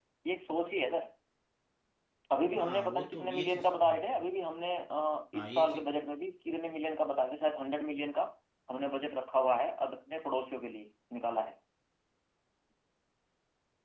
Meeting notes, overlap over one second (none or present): present